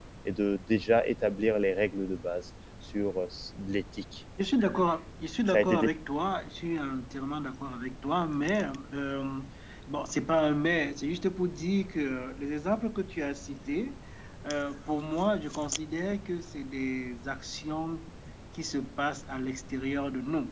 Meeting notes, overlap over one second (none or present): none